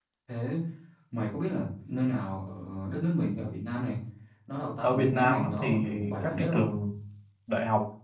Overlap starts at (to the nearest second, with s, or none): 5 s